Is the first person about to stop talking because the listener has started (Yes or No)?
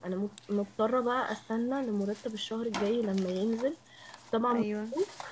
No